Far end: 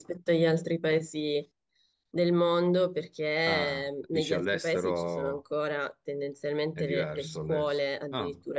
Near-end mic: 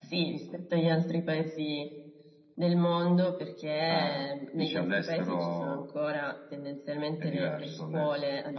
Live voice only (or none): none